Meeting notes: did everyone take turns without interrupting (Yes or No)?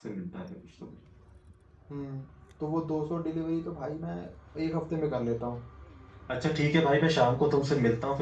Yes